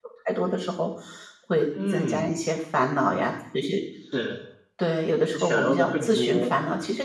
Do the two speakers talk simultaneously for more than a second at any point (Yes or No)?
Yes